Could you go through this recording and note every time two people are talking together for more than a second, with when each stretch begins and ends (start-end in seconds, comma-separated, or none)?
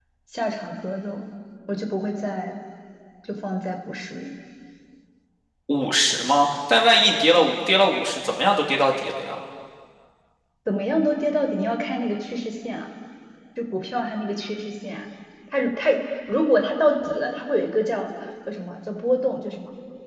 none